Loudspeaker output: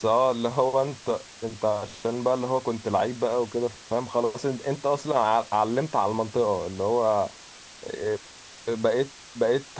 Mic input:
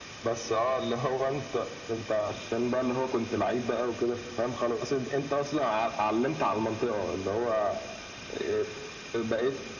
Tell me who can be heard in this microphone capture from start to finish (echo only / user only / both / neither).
echo only